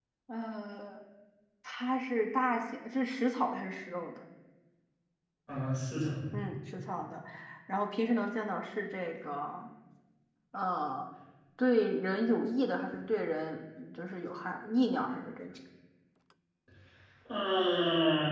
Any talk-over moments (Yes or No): No